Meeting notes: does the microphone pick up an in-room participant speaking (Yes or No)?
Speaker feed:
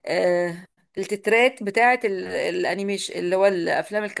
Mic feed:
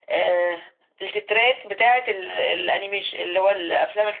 No